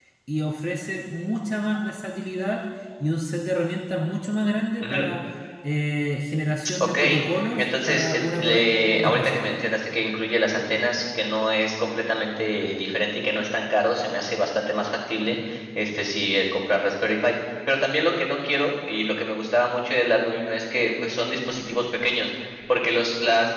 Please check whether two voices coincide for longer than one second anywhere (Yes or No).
Yes